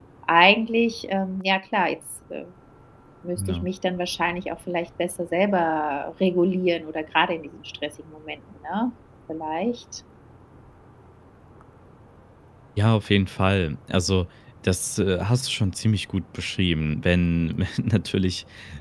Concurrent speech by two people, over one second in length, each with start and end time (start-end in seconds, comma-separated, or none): none